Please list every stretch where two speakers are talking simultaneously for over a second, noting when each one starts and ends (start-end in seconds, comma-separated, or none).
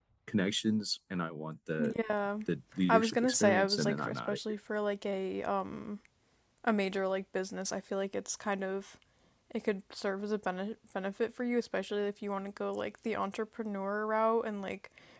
2.9-4.4